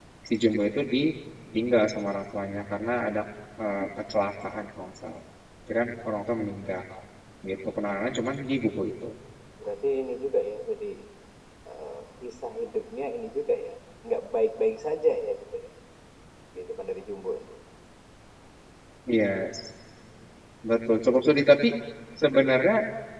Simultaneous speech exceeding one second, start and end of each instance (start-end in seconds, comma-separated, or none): none